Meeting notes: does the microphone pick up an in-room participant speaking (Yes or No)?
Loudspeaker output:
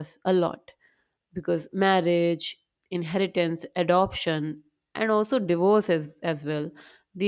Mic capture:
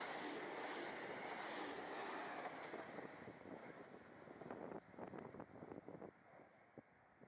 No